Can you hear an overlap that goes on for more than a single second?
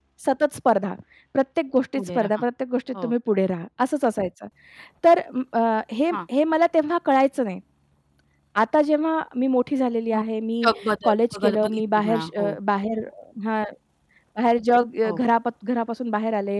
Yes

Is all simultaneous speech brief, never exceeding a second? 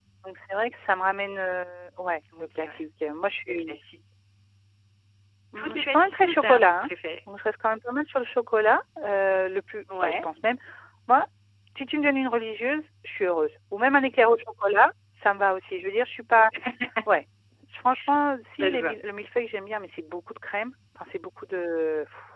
No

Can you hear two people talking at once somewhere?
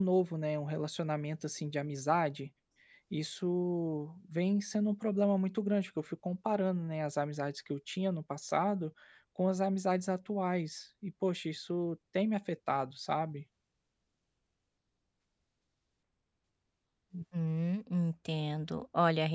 No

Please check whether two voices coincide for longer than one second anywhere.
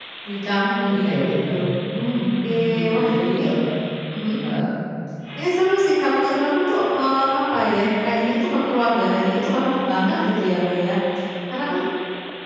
Yes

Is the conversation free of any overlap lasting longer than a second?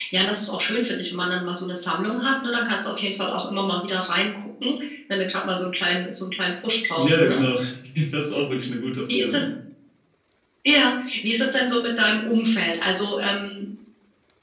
Yes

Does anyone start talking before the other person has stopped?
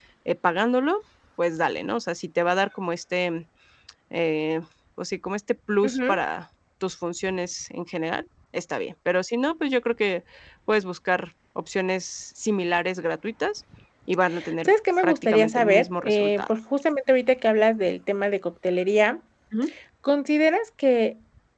Yes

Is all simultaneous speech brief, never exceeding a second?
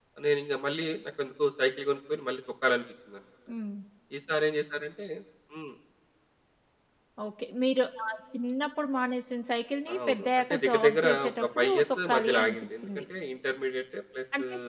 No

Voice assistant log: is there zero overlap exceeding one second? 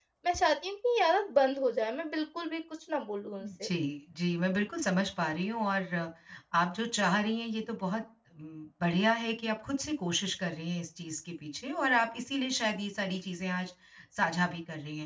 Yes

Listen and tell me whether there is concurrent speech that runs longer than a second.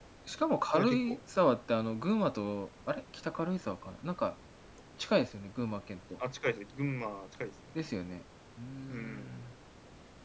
No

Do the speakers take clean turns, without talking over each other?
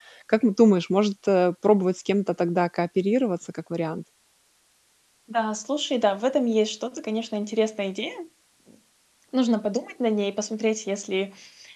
Yes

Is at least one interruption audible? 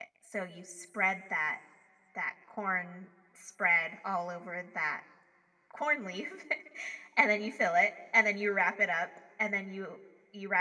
No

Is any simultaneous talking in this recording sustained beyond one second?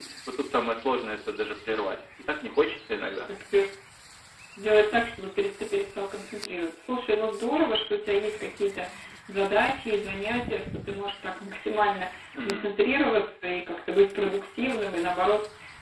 No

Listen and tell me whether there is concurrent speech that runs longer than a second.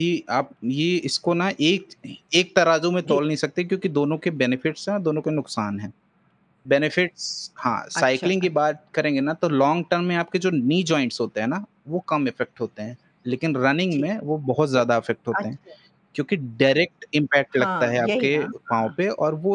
Yes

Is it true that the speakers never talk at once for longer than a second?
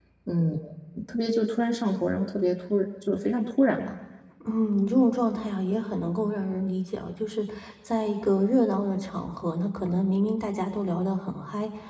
Yes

